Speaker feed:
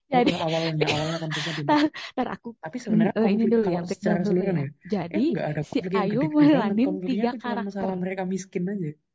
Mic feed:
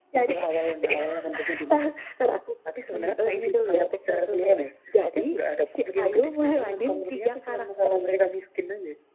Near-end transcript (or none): none